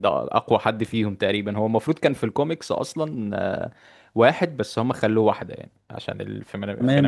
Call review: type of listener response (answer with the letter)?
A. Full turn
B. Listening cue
A